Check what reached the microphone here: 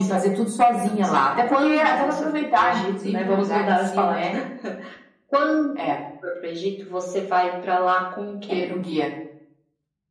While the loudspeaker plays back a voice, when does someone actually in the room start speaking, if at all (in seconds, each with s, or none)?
none